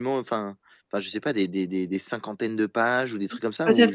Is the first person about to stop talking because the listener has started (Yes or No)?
Yes